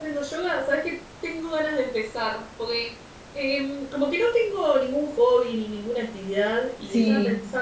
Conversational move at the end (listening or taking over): listening